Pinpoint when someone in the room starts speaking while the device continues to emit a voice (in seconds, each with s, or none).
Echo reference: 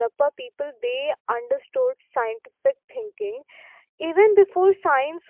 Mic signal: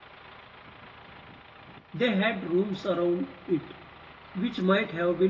1.9 s